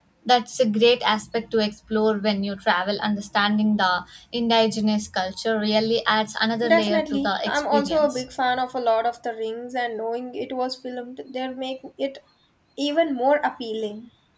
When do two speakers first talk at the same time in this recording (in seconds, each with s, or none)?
6.6 s